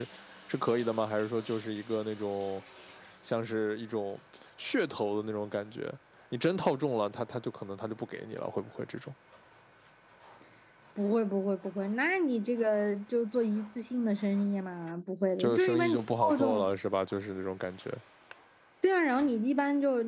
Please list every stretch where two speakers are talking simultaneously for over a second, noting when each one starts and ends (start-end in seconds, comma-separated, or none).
15.4-16.7